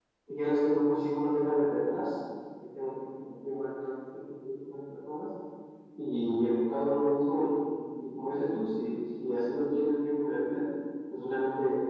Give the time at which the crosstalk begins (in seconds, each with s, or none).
none